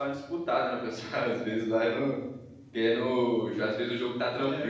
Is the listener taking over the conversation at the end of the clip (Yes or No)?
No